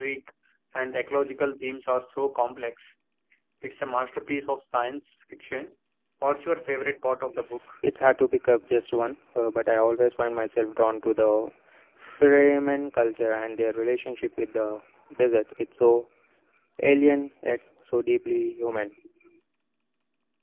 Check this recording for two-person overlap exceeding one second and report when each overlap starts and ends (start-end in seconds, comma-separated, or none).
none